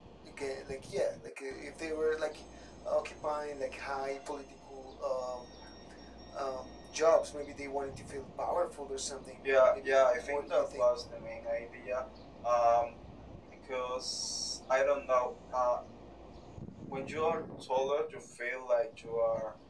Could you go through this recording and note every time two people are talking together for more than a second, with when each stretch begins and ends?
9.4-11.0

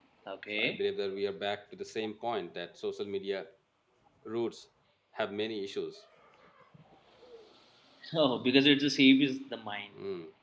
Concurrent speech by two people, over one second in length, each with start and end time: none

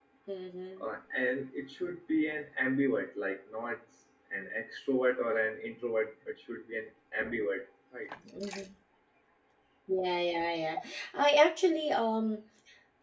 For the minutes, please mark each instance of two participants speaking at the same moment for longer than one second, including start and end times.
none

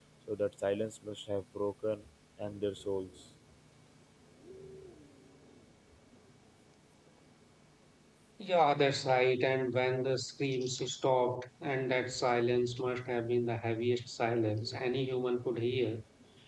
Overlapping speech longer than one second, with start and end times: none

